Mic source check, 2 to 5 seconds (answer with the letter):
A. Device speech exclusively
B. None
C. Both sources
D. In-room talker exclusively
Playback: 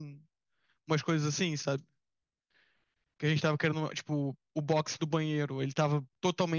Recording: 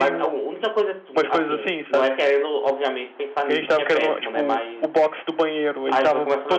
C